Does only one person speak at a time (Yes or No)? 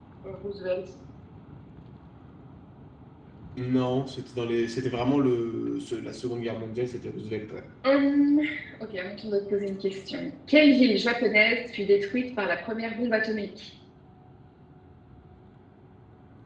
Yes